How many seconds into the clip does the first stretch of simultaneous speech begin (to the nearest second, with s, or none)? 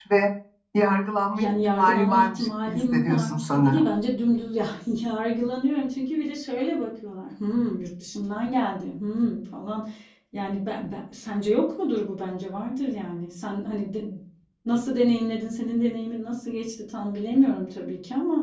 1 s